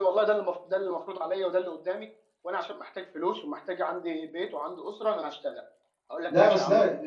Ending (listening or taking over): taking over